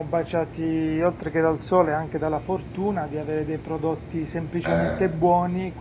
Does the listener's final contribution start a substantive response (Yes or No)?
No